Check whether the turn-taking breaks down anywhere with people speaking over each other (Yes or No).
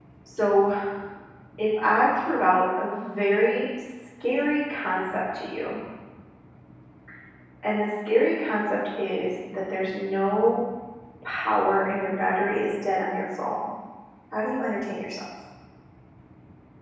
No